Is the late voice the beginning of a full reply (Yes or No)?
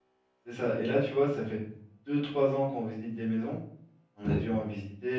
No